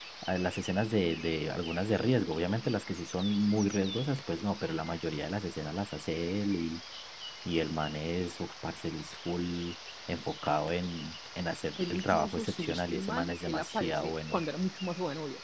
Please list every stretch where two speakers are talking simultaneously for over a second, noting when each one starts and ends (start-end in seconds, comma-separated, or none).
11.8-14.4